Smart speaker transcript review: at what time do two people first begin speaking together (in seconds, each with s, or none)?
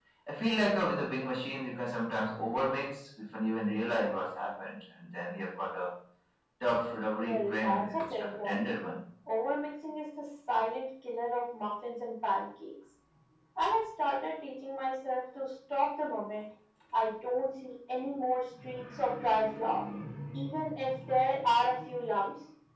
7.2 s